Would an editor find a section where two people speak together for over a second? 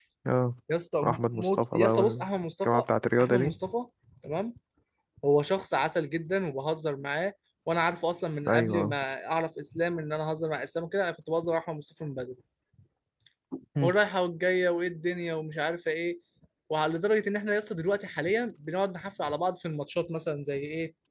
Yes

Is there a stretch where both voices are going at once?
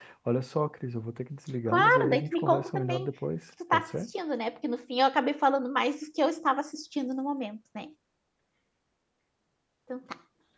Yes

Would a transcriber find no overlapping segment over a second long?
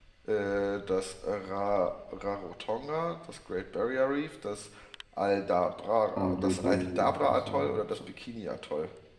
No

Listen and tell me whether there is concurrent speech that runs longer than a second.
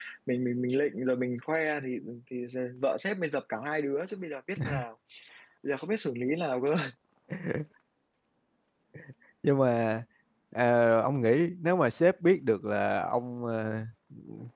No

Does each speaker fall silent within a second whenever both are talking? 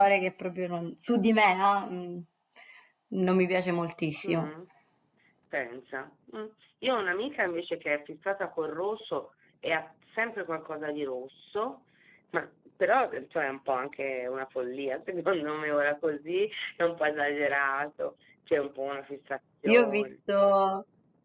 Yes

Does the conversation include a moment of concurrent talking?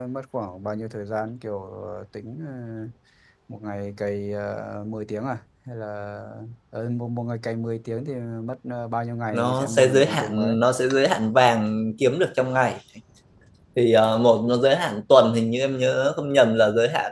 Yes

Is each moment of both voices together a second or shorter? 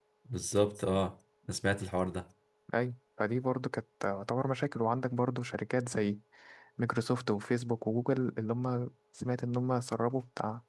Yes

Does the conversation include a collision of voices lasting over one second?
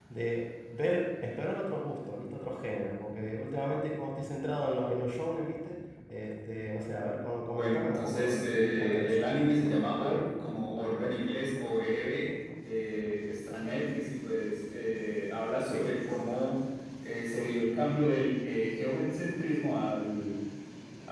Yes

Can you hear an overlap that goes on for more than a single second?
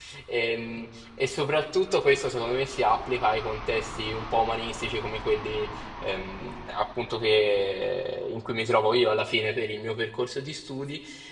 No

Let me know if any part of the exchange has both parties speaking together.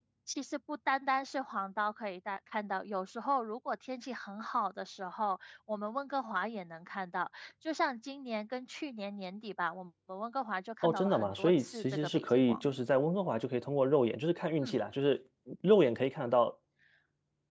Yes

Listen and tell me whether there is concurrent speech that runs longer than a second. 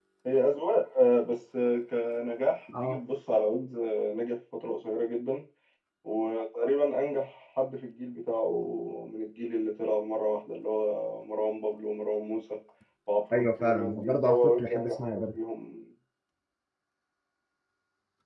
Yes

